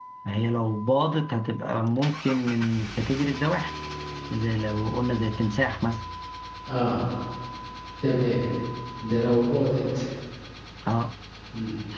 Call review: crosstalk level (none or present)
none